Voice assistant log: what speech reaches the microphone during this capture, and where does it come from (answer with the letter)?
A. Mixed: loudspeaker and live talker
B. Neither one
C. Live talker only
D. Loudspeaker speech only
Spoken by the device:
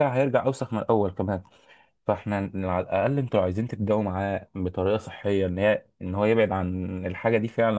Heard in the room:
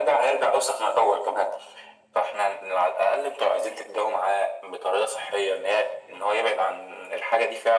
D